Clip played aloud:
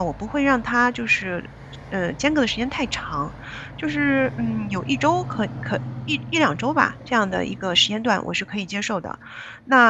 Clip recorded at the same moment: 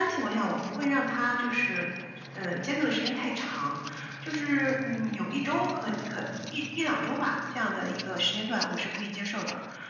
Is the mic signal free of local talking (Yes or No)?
Yes